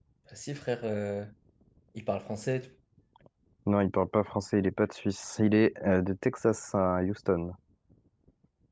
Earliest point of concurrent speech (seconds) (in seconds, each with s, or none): none